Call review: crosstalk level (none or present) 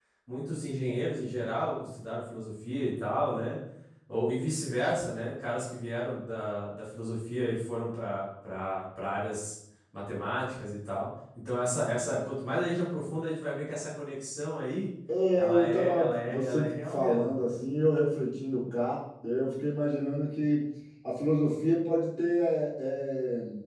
present